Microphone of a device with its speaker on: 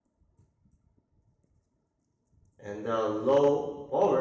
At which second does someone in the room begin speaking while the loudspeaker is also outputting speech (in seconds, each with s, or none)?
2.6 s